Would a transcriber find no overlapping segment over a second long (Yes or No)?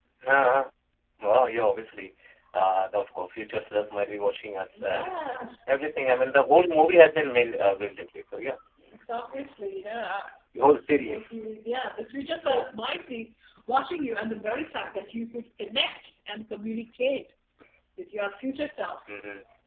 Yes